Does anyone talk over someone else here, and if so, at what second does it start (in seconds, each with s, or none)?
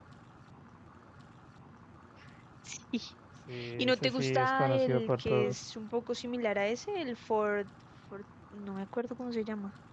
3.8 s